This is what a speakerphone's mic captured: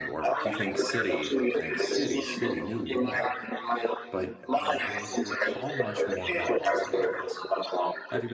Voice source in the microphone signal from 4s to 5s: both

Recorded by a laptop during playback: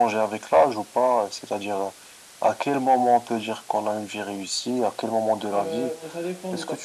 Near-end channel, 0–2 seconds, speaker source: echo only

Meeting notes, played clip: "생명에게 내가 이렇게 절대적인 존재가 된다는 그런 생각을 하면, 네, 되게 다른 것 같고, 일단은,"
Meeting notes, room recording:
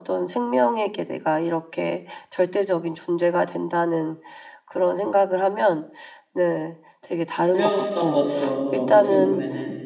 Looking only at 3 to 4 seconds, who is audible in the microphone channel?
echo only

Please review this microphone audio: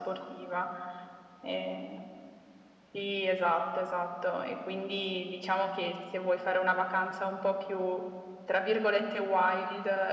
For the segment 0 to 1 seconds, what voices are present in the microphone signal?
echo only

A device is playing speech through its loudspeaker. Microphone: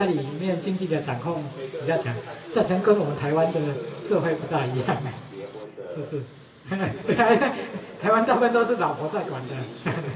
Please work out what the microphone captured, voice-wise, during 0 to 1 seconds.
both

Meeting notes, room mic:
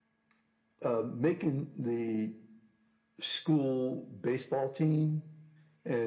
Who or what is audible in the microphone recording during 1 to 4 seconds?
echo only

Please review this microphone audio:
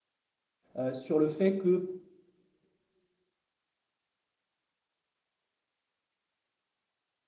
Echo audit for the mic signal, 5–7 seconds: neither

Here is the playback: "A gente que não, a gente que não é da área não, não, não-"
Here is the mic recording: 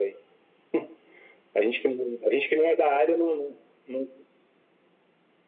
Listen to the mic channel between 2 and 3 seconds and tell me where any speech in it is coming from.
echo only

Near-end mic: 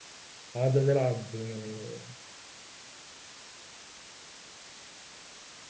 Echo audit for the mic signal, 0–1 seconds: user only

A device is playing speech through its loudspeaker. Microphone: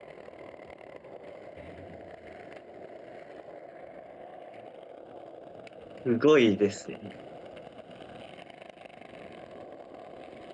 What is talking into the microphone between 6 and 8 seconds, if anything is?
user only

